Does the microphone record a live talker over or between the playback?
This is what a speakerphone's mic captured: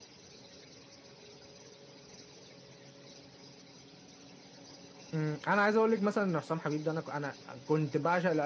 Yes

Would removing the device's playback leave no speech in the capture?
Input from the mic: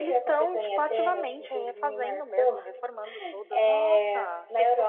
No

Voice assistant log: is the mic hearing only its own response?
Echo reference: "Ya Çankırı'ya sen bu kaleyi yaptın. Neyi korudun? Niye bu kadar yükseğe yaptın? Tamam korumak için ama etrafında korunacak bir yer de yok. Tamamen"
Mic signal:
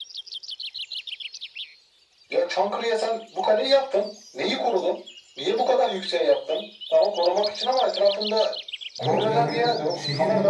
No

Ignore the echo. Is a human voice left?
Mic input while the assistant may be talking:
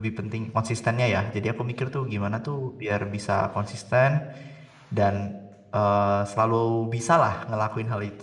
Yes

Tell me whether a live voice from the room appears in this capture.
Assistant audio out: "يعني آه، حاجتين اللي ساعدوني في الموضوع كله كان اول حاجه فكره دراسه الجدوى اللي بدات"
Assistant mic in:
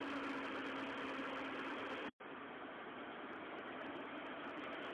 No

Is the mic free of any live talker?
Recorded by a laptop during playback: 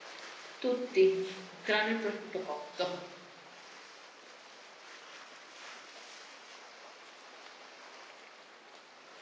No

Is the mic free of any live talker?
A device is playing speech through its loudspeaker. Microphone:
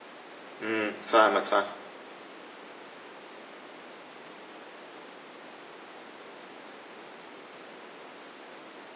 No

